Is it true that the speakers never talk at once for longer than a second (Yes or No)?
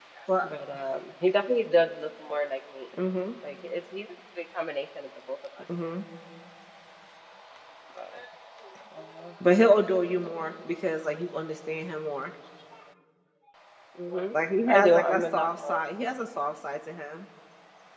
No